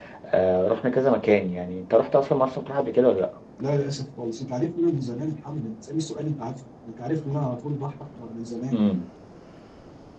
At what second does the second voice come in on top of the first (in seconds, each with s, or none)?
none